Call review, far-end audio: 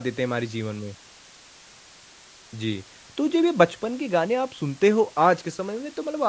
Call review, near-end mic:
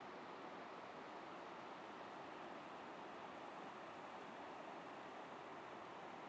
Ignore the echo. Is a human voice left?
No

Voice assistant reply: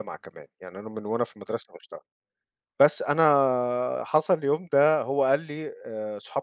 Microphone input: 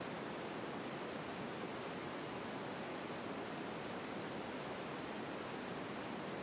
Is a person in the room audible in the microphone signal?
No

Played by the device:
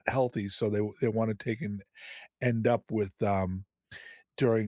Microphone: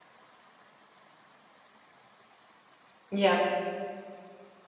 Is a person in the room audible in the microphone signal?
Yes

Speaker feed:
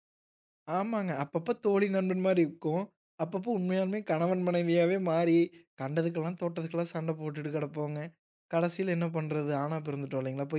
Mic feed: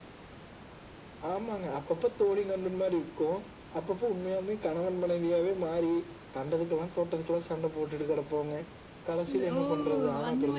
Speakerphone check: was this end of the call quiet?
No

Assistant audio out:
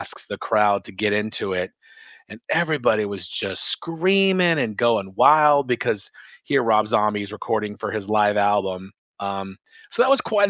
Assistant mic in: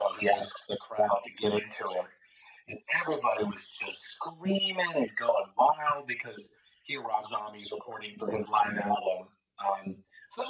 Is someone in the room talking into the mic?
No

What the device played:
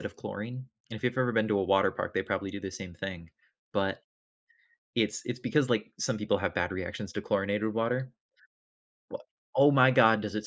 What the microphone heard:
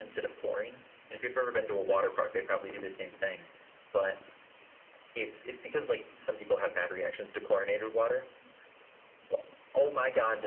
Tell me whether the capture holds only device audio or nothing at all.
Yes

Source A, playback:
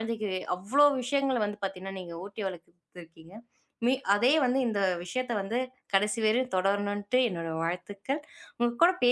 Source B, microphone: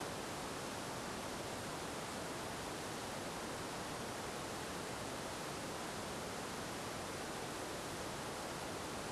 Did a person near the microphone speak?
No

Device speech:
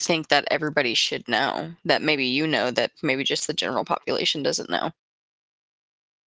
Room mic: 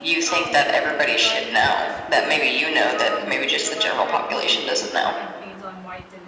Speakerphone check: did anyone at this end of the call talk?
Yes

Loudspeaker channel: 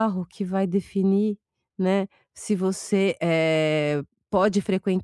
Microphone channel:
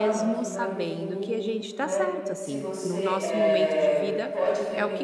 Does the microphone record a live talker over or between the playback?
Yes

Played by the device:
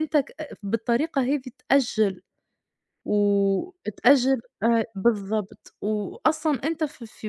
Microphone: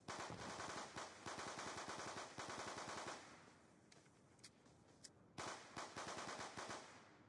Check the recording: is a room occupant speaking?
No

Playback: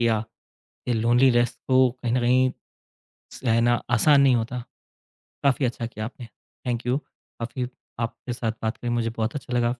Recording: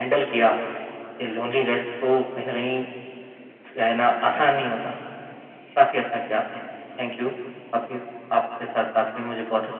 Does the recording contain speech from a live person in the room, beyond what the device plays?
No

